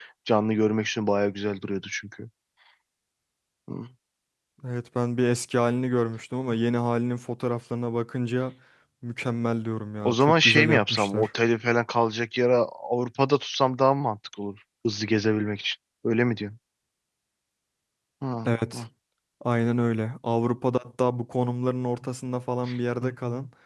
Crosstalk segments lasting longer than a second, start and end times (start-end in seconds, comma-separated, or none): 10.0-11.3